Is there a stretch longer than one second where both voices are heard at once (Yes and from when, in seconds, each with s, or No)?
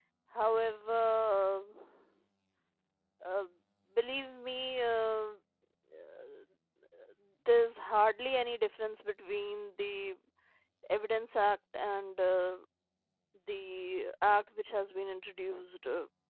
No